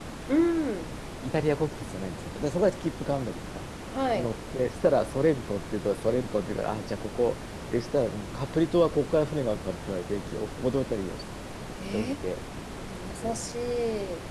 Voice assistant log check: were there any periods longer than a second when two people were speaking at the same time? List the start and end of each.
none

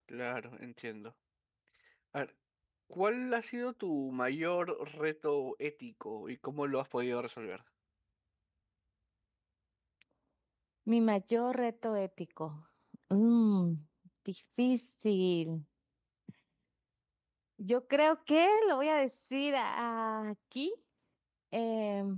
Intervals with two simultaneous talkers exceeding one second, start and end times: none

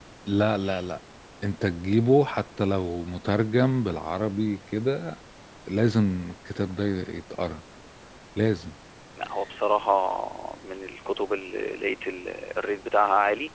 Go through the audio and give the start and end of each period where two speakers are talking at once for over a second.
none

